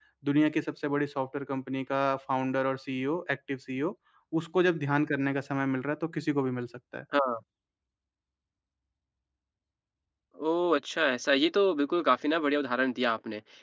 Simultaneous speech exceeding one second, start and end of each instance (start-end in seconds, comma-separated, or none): none